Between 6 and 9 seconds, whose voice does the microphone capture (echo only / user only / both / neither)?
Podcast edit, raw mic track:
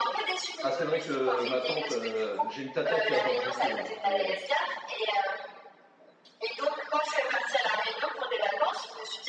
echo only